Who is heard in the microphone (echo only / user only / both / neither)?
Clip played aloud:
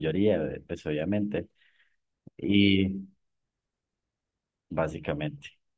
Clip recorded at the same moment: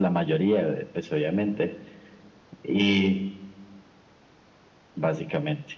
echo only